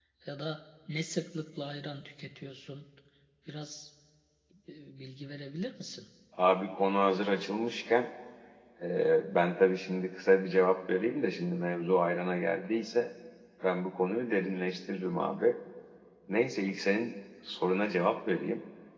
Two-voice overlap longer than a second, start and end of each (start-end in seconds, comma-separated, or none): none